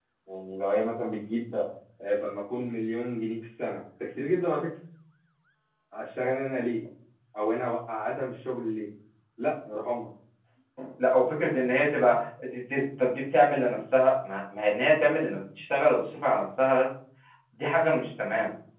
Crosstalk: none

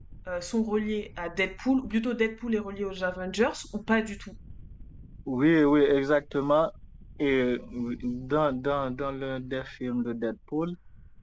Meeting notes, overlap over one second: none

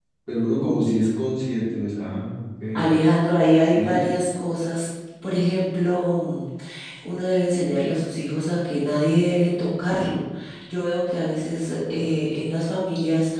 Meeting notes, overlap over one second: none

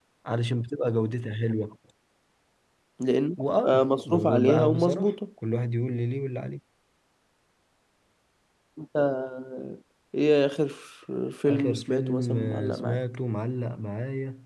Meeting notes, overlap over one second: present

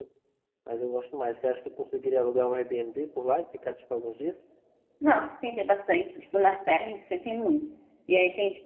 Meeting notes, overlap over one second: none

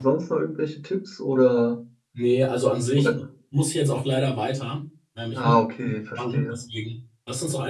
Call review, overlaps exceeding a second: present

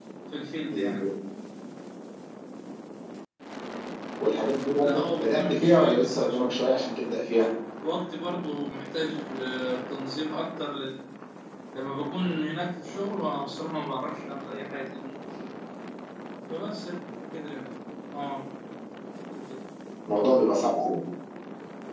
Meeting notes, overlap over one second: present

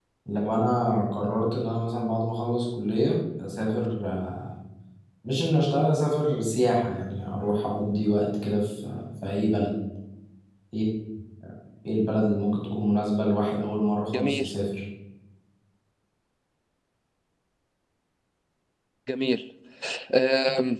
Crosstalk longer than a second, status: none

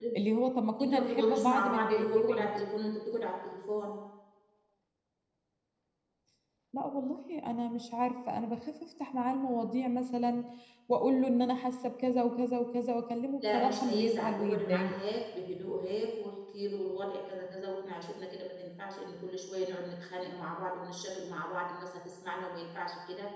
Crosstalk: present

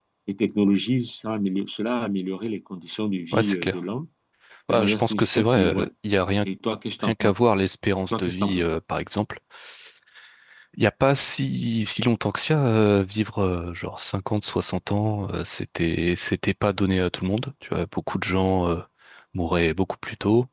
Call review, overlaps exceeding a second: present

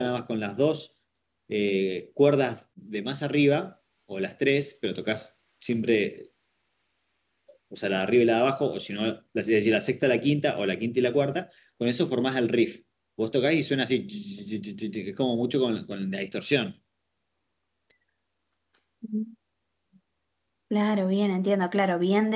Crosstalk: none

